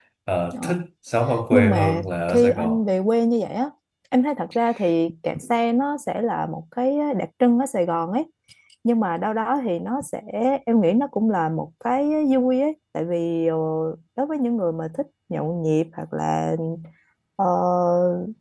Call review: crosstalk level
present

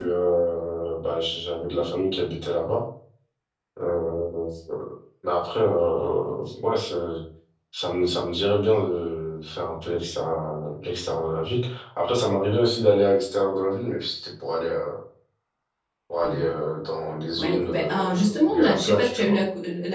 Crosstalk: present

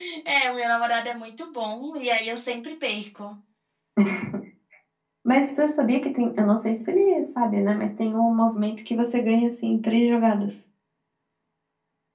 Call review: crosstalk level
none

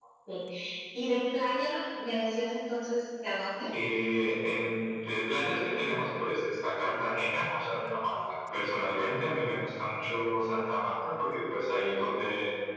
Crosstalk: none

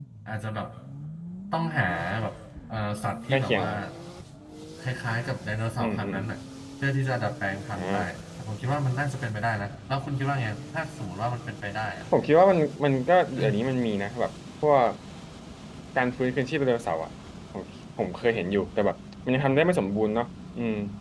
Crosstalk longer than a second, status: none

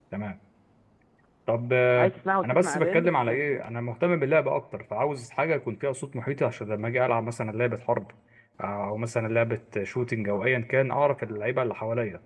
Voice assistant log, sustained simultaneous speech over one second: present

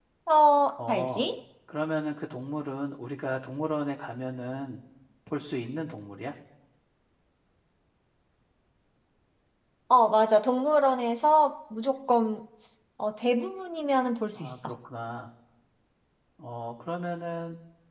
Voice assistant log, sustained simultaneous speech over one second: none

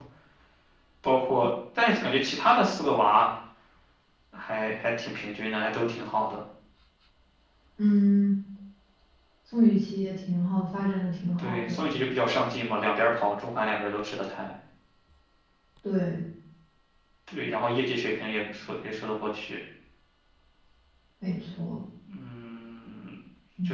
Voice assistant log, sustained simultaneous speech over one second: none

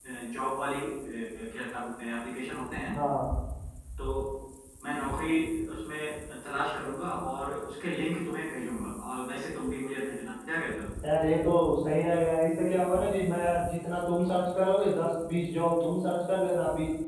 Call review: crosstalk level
none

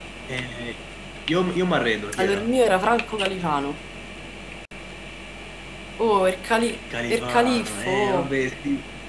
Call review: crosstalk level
present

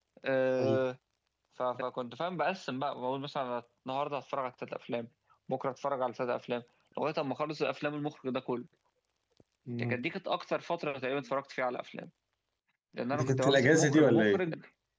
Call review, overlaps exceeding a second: present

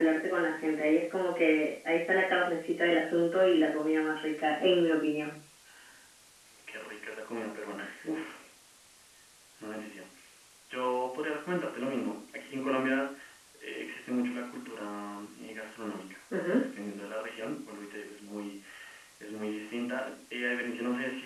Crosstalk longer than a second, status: none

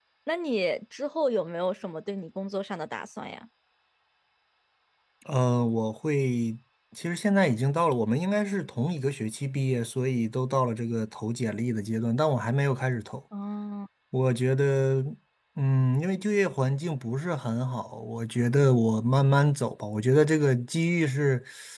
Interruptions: none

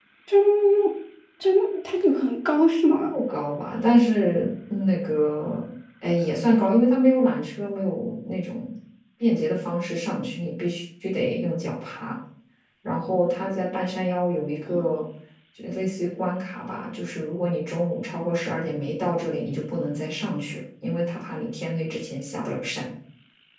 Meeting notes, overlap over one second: none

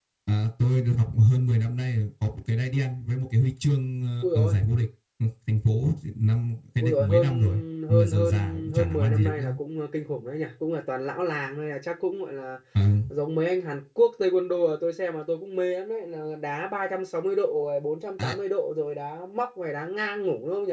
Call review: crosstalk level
present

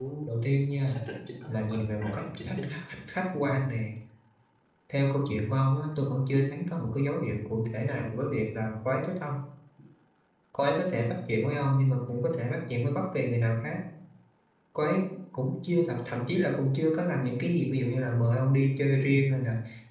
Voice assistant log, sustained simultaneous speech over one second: present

